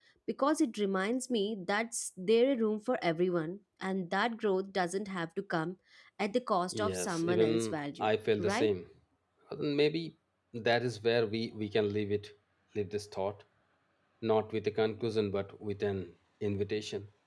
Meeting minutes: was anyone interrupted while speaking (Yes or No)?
Yes